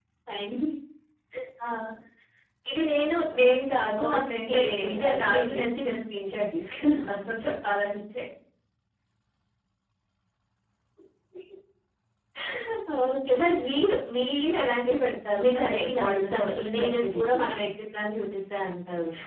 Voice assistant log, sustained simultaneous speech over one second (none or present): present